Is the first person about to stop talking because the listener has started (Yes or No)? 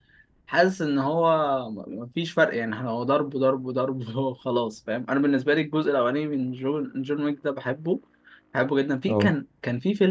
No